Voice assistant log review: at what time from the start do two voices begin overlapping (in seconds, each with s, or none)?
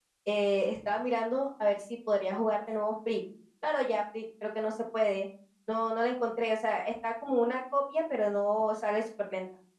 none